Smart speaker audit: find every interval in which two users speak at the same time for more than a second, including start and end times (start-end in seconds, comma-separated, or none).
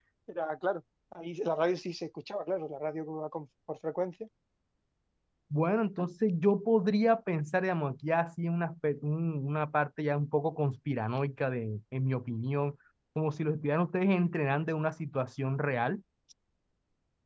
none